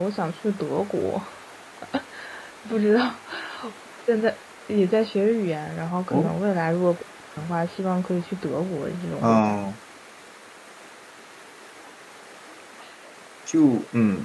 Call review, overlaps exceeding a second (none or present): none